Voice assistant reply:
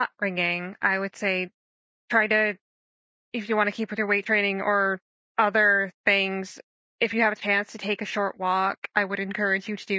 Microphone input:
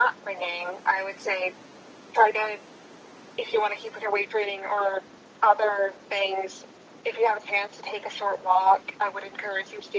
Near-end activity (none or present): none